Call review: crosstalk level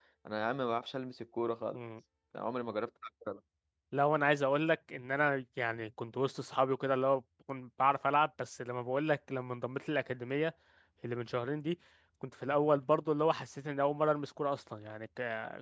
none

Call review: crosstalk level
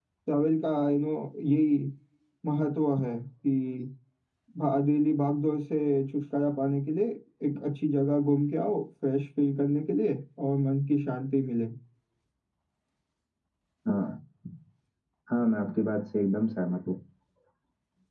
none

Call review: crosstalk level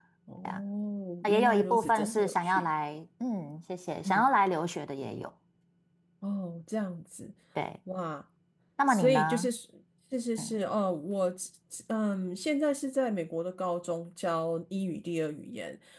present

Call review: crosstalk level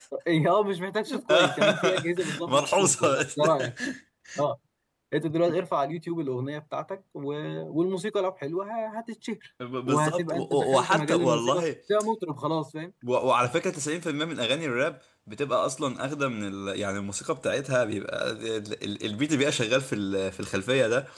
present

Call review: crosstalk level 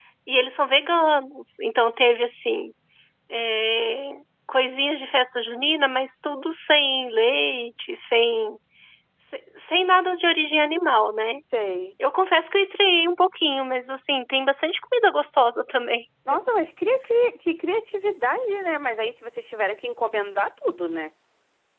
none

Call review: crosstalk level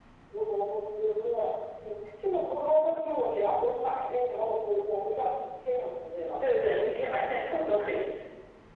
none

